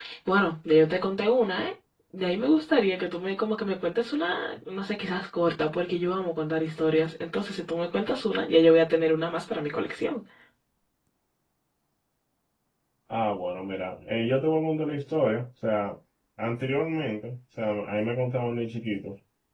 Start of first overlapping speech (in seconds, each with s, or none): none